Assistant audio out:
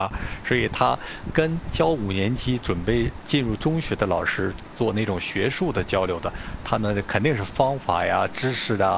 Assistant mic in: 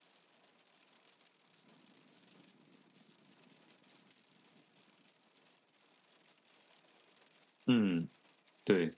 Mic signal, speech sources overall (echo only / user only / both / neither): user only